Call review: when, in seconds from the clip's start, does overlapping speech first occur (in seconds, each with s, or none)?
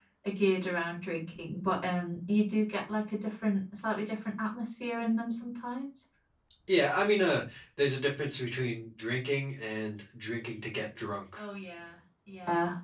none